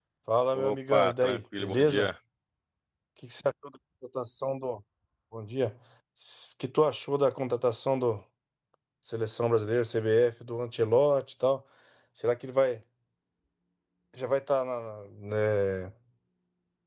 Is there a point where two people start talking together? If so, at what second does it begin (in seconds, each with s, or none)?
0.5 s